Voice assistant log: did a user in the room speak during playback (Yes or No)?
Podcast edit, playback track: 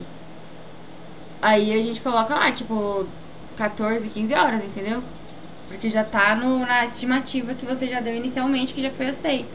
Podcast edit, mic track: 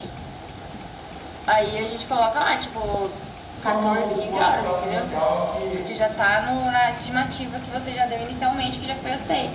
Yes